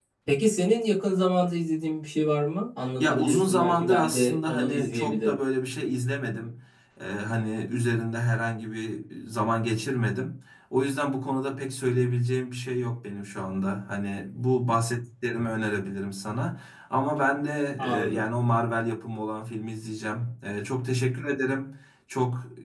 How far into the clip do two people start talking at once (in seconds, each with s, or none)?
3.0 s